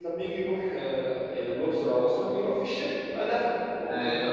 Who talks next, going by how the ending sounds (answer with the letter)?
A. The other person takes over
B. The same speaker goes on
A